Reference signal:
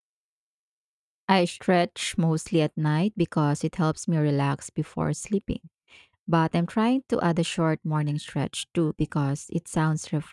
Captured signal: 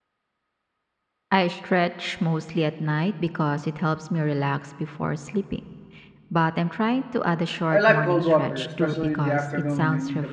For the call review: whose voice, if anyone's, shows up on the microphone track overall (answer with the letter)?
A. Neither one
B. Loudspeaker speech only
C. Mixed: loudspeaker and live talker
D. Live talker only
C